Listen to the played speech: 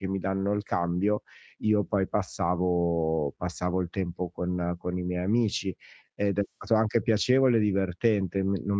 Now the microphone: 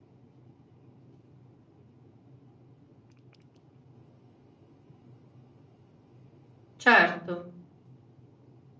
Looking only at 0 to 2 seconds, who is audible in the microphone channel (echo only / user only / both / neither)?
neither